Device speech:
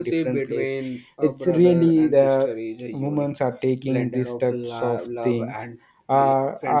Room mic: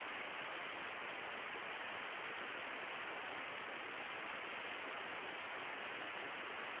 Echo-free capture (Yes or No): Yes